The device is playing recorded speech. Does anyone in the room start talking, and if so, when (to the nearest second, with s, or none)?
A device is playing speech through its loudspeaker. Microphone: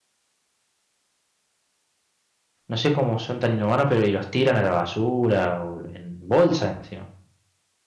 3 s